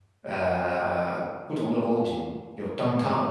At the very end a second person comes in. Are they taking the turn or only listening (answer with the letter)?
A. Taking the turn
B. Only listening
A